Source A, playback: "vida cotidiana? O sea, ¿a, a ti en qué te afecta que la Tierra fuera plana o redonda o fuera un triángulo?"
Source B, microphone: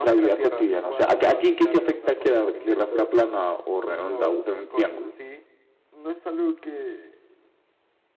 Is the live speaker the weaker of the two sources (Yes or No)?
Yes